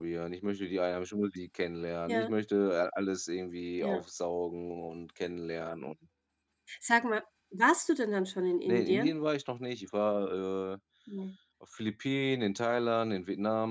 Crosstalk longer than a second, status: none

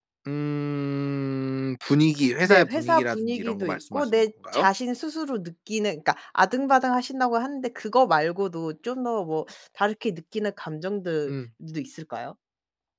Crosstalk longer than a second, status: present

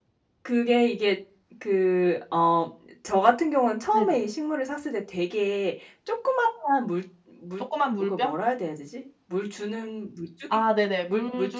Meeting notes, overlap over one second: none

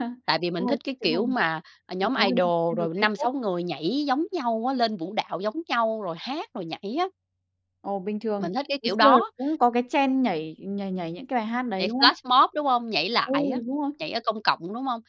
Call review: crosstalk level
present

